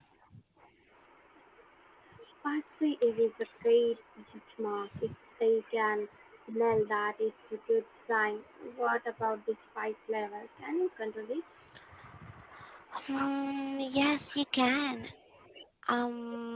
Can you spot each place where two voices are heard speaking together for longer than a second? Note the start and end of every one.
none

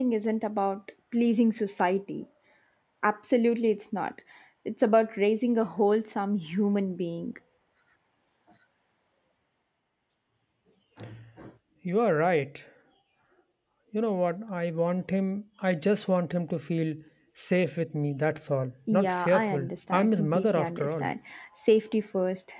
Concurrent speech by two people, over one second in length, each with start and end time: 18.9-21.1

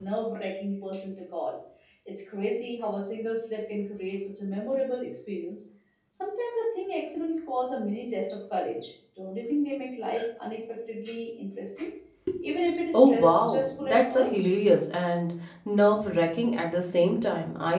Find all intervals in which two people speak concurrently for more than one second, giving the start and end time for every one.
12.9-14.4

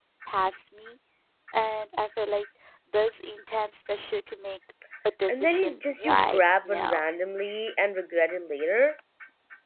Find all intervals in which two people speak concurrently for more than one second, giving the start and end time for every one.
5.3-7.0

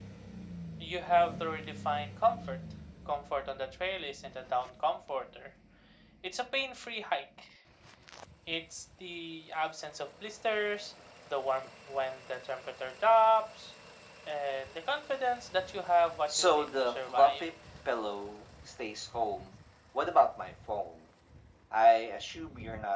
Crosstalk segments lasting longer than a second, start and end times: 16.3-17.5

